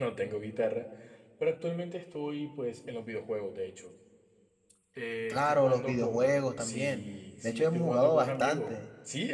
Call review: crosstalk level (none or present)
present